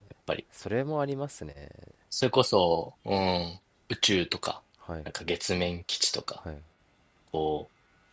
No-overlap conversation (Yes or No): Yes